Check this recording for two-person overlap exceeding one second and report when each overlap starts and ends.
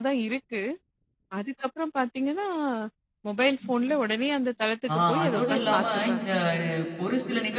4.9-6.3

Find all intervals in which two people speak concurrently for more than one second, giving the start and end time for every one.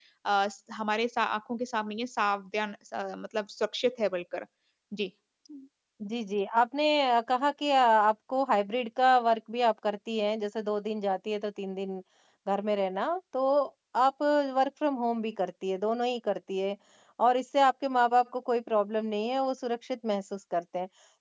none

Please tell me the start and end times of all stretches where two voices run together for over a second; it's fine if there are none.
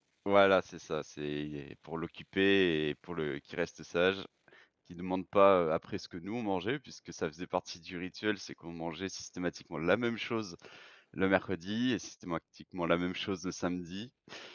none

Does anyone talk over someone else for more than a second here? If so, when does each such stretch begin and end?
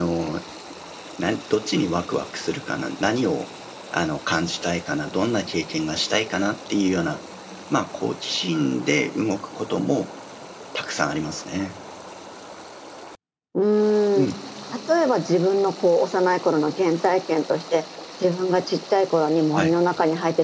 none

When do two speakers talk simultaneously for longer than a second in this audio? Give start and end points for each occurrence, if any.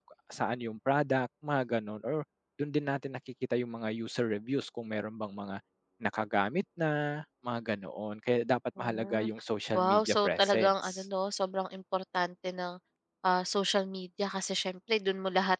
9.8-11.1

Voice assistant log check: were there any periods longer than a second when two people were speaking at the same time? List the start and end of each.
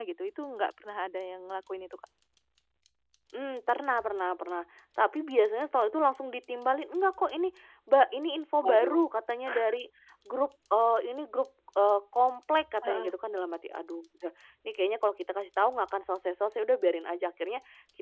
none

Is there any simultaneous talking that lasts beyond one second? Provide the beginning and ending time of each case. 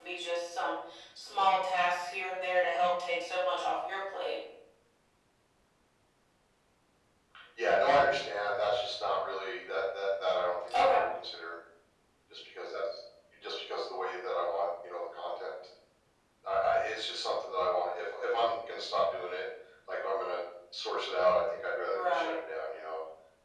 none

